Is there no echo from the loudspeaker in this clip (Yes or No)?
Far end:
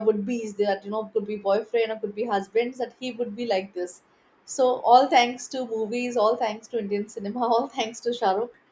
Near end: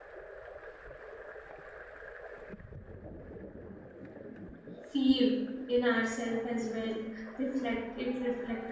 Yes